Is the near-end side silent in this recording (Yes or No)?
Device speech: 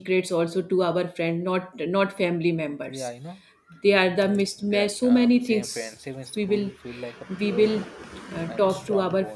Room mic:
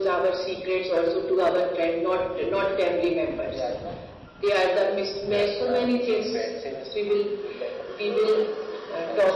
Yes